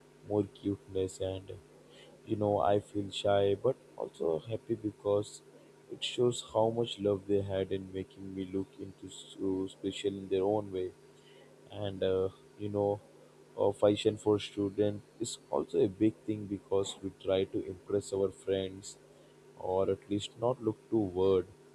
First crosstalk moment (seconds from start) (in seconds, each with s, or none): none